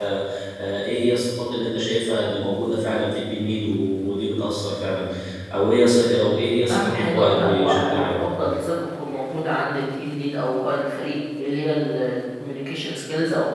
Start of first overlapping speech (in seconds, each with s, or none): 6.7 s